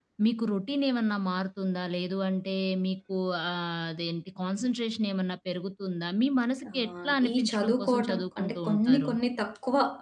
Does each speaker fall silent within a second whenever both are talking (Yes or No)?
No